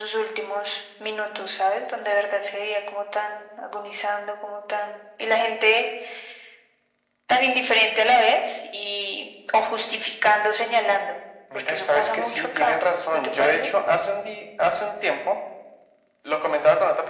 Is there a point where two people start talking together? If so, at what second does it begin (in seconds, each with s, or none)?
11.5 s